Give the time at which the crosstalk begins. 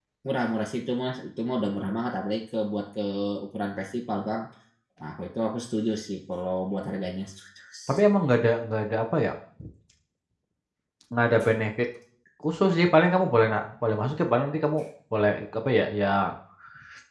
none

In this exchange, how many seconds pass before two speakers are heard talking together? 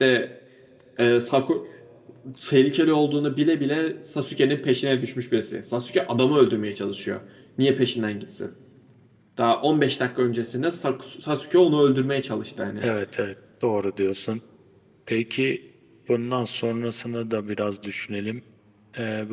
none

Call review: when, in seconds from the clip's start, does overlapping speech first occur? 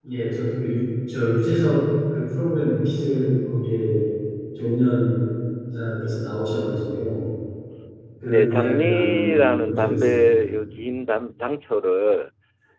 8 s

